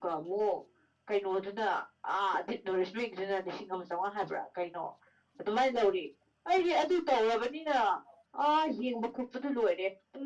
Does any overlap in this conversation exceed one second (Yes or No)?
No